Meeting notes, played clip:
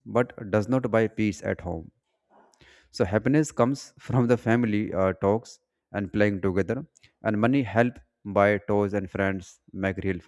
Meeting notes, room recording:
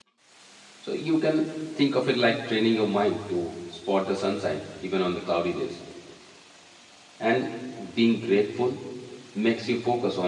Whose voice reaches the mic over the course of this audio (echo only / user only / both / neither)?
user only